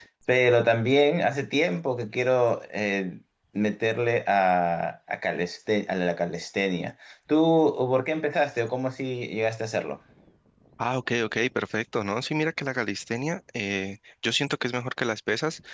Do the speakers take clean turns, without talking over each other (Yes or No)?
Yes